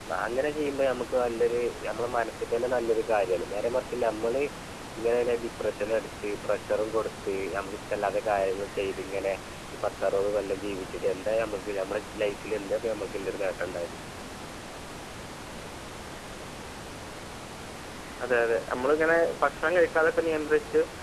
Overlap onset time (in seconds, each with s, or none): none